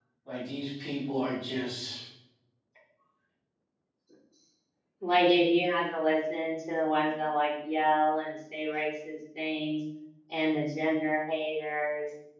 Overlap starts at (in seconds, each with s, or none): none